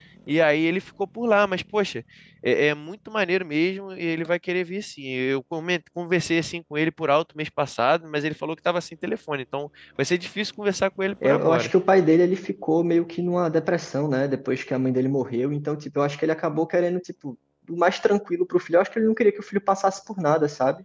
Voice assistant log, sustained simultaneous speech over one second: none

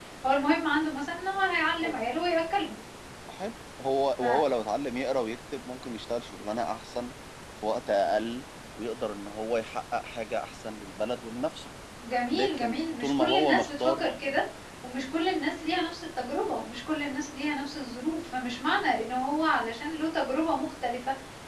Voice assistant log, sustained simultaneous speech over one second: present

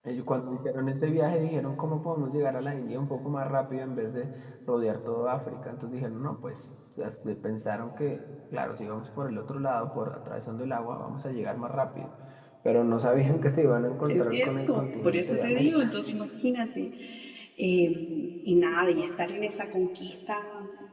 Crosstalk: present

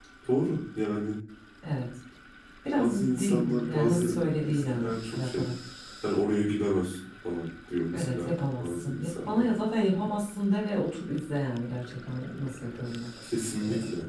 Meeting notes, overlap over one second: present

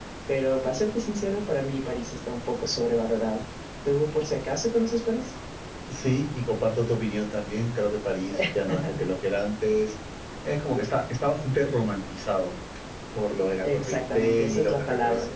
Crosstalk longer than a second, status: present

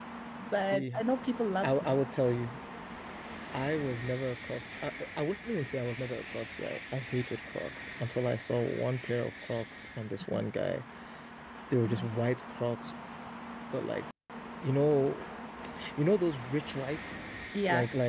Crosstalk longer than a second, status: none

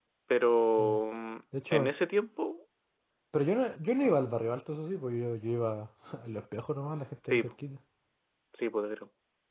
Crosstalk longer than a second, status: none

